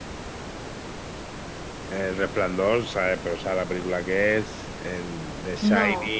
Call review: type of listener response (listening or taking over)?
listening